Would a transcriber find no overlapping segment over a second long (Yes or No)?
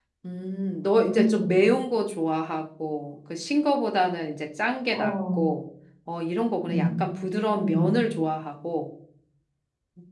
Yes